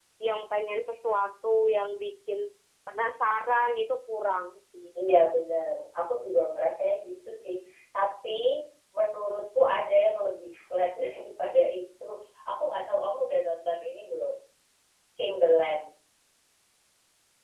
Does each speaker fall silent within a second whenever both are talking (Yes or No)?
Yes